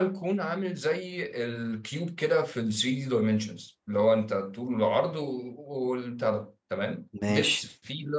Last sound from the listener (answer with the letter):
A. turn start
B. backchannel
B